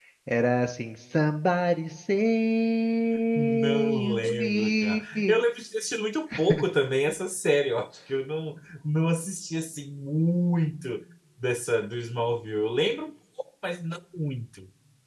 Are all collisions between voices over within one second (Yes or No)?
No